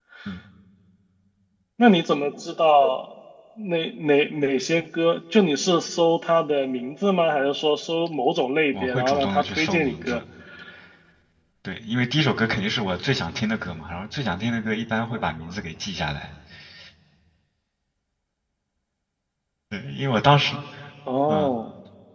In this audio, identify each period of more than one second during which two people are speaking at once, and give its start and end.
8.7-10.2

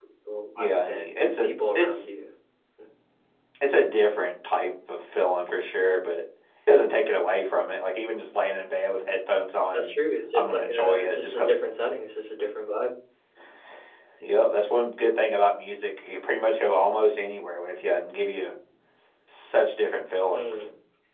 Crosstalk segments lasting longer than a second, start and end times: 0.6-2.0, 10.3-11.6

